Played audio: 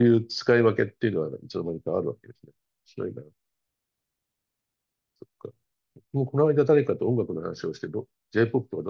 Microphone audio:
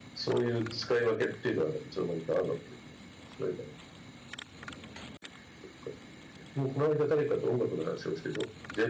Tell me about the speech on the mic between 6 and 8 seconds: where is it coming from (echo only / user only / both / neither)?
echo only